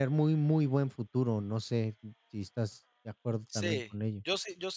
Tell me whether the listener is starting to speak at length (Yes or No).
Yes